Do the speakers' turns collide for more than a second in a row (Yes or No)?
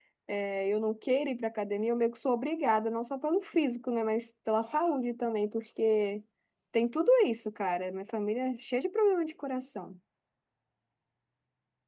No